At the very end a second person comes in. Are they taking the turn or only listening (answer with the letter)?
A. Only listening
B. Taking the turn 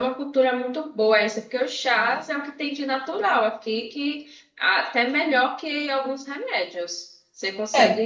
A